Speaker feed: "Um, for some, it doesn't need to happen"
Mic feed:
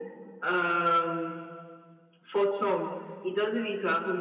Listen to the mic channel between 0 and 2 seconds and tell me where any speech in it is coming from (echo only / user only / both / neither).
echo only